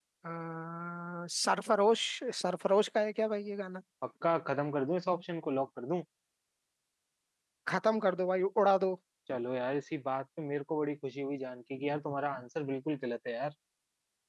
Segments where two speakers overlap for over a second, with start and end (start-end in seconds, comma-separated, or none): none